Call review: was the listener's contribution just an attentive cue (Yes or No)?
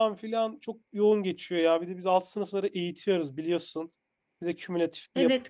No